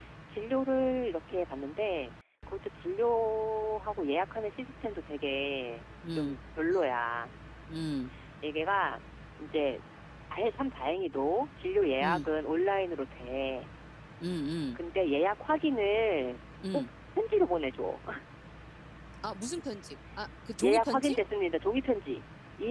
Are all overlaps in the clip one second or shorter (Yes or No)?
Yes